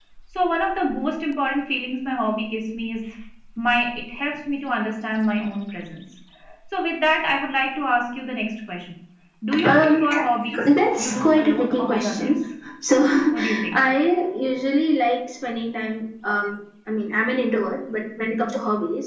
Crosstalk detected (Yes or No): Yes